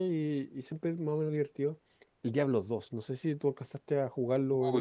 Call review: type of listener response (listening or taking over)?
taking over